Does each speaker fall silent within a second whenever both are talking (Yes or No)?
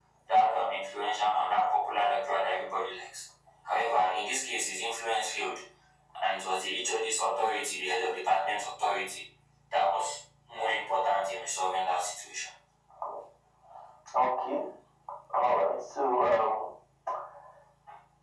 Yes